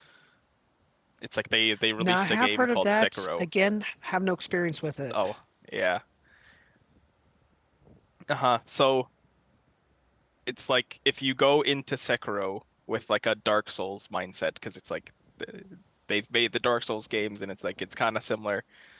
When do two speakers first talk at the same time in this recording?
2.0 s

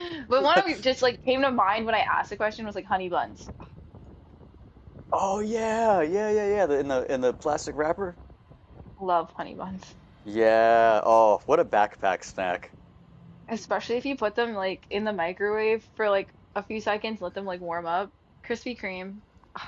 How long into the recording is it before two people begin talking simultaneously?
none

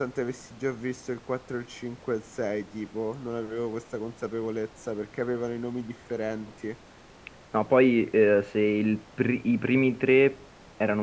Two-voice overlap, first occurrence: none

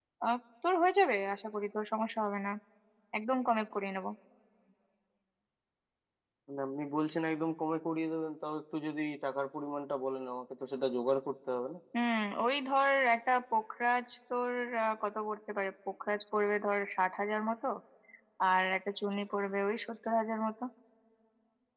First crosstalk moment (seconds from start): none

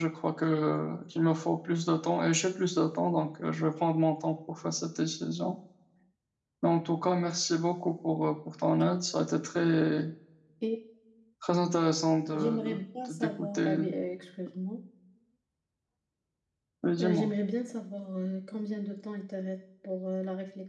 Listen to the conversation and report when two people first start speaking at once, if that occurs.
12.3 s

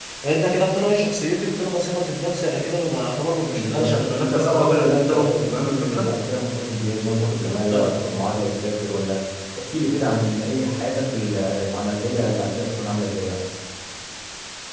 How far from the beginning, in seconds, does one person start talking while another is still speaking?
3.5 s

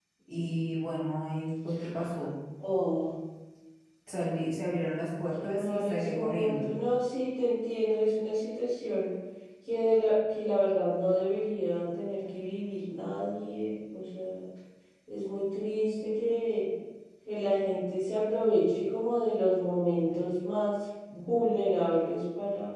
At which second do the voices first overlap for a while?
5.4 s

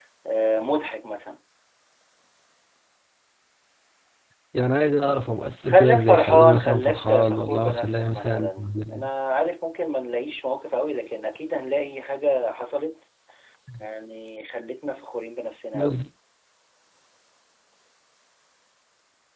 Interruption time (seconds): 5.7 s

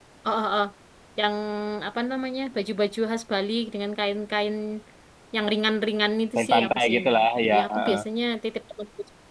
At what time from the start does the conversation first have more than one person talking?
6.3 s

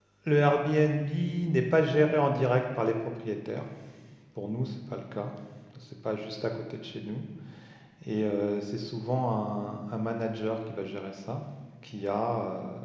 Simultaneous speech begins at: none

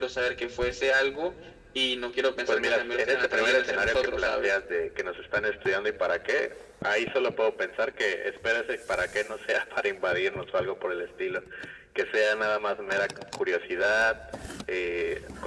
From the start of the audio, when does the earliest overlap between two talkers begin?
2.5 s

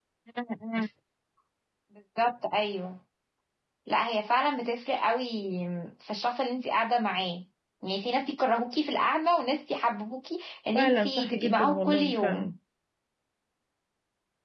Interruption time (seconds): 10.8 s

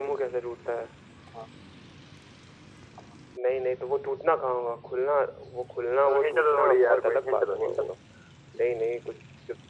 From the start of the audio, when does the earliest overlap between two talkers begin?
6.1 s

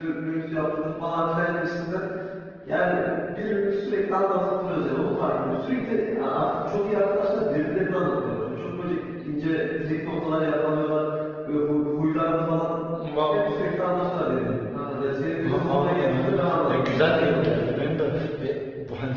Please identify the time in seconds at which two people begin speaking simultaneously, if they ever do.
15.4 s

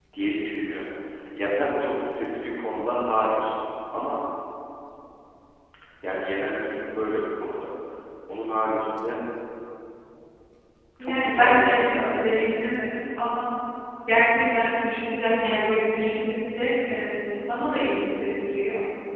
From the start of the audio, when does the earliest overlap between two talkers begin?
11.0 s

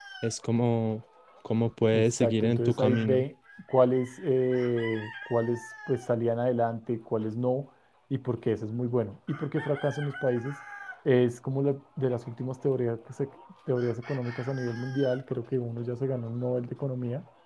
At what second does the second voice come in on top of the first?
1.9 s

